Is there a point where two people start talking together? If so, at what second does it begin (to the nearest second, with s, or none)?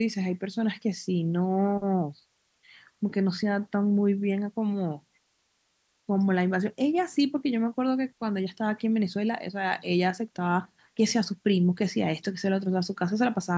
none